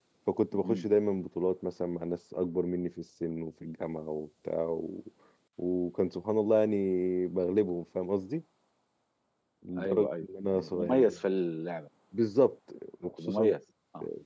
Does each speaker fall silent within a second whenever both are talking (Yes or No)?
No